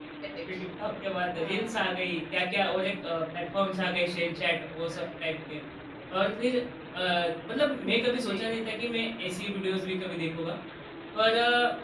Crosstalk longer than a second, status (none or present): none